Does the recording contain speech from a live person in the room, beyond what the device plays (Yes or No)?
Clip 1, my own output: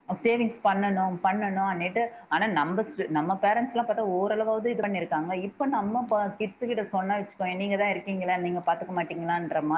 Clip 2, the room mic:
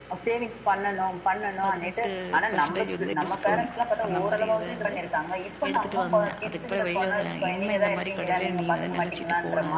Yes